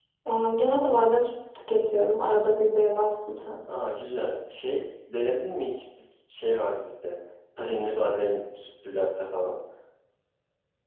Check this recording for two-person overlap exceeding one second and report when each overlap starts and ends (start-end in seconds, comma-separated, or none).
none